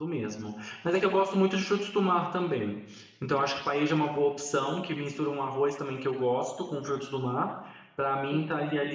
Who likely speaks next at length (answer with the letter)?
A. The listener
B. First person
B